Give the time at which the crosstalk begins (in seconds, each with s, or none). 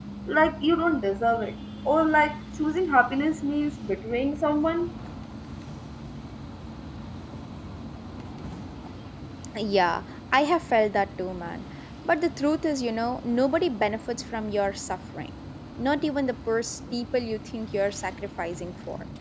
none